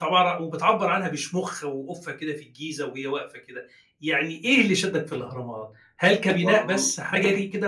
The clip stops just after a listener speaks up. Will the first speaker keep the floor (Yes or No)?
Yes